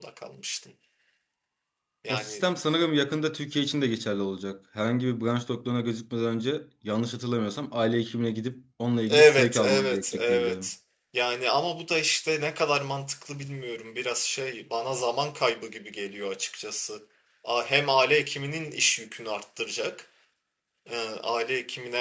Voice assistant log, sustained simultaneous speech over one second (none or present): present